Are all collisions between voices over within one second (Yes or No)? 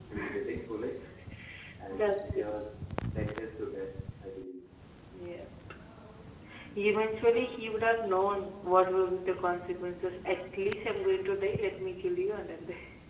Yes